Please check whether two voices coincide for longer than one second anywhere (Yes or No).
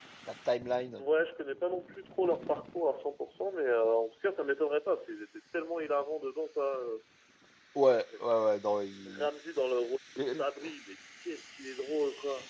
No